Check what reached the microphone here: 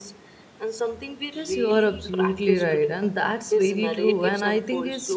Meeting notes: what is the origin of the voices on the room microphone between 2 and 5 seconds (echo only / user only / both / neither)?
both